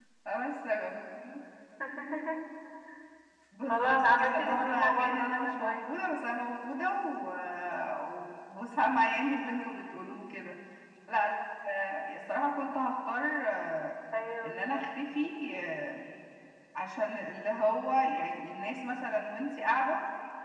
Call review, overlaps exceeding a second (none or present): present